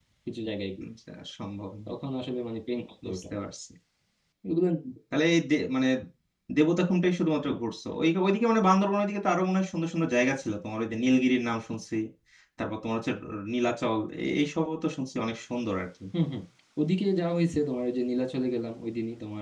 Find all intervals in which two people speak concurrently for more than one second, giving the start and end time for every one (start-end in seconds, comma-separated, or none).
none